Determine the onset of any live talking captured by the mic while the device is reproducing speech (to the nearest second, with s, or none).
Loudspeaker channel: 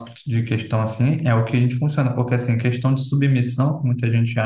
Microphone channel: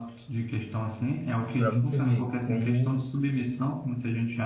2 s